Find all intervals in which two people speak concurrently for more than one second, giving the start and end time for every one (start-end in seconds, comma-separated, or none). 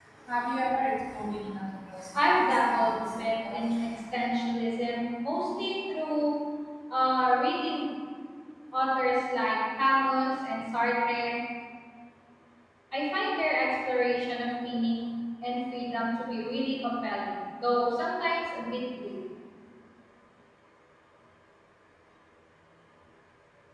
2.1-3.7